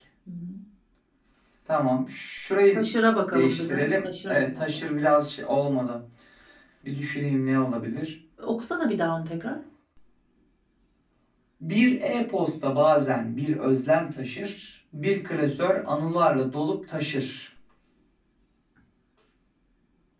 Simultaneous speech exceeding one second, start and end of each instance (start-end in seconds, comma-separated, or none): 3.3-4.8